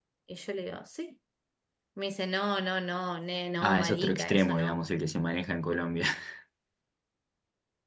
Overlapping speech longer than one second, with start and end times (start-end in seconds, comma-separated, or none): 3.6-4.9